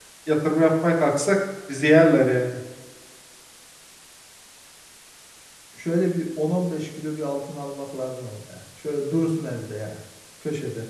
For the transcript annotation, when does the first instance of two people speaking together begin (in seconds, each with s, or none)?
none